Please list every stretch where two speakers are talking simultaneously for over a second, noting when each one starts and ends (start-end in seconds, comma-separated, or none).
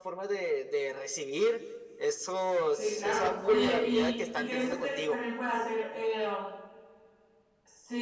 2.8-5.2